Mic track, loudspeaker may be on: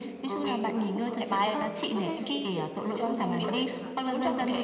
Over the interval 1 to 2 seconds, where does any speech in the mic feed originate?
both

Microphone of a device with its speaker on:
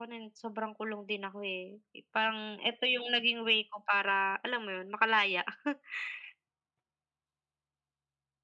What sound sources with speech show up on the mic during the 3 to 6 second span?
echo only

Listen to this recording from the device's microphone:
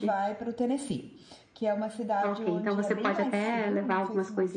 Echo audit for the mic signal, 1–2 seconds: user only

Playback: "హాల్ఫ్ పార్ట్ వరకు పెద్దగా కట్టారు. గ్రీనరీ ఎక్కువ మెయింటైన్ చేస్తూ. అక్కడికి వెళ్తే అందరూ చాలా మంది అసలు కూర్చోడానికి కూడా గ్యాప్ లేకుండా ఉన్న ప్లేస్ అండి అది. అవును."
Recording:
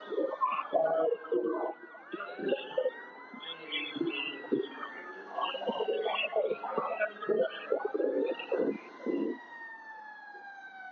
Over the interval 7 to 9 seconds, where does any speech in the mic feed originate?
echo only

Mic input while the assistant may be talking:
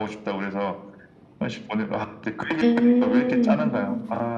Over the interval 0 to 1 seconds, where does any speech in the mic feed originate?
echo only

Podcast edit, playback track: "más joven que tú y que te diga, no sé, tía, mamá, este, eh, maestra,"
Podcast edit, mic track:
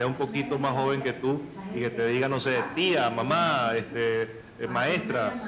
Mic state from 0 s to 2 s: both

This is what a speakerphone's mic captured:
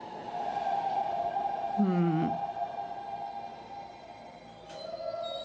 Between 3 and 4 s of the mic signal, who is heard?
neither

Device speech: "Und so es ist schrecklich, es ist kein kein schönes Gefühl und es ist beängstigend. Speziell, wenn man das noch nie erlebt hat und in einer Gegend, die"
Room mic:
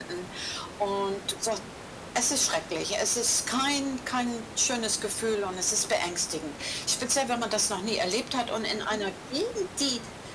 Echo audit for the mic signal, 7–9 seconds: echo only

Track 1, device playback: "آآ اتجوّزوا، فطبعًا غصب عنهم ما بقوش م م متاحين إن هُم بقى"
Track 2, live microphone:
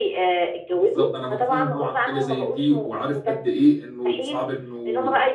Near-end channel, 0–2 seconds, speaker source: both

